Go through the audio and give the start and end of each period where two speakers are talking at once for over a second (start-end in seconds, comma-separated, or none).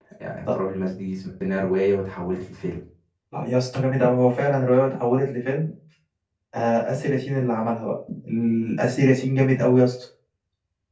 none